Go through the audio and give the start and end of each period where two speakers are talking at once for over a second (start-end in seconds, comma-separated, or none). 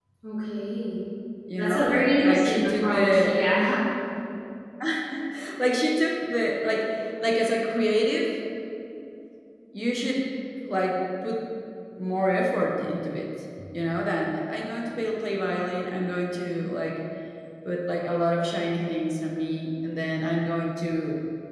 1.6-3.3